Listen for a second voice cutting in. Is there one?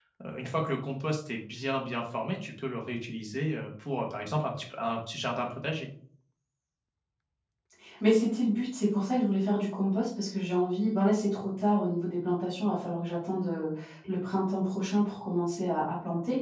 No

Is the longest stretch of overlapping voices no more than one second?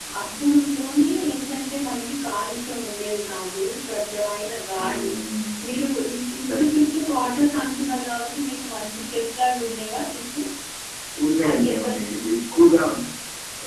Yes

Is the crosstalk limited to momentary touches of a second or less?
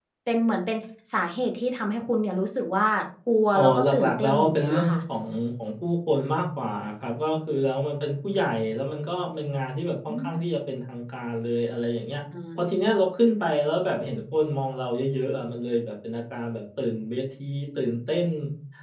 No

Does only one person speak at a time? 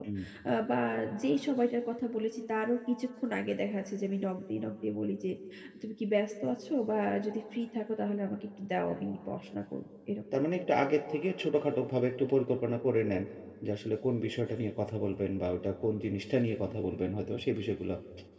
Yes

